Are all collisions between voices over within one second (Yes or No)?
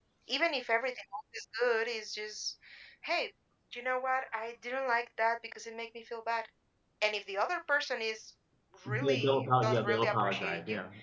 No